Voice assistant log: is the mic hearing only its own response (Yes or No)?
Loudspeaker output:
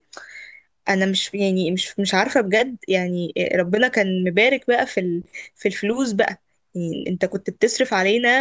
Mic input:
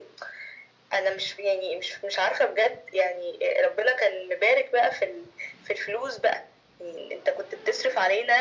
Yes